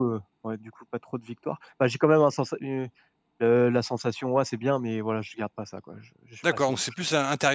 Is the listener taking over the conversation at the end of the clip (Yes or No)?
Yes